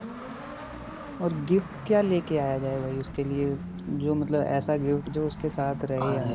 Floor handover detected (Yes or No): Yes